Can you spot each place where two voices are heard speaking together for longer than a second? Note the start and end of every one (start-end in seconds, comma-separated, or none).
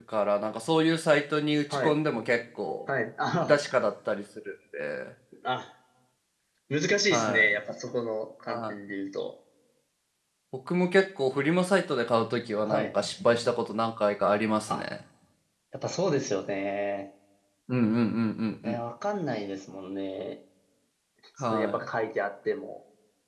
none